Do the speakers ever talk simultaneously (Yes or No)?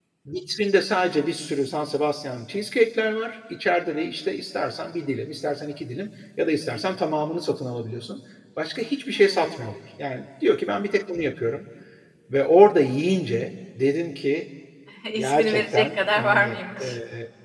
Yes